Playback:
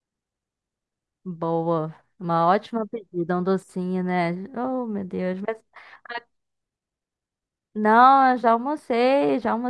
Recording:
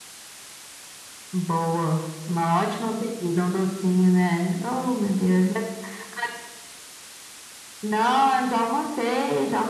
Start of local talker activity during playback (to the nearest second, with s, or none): none